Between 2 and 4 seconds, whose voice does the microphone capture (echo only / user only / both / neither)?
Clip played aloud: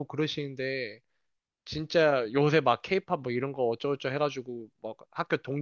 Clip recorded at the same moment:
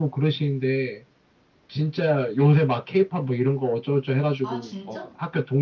echo only